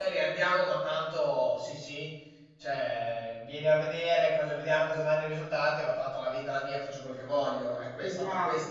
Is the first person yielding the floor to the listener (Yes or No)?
Yes